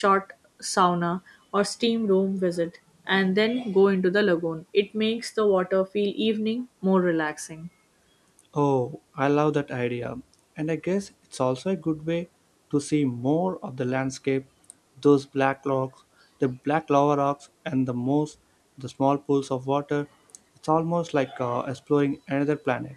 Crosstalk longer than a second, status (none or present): none